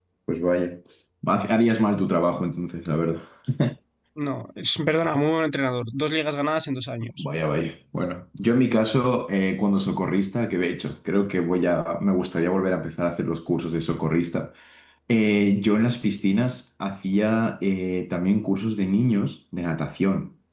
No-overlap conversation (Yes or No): Yes